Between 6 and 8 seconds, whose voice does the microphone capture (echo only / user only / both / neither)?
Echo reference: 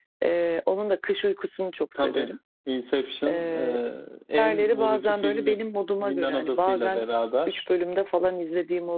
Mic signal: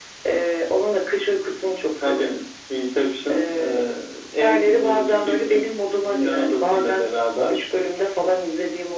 echo only